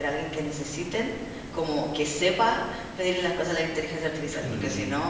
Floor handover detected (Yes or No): No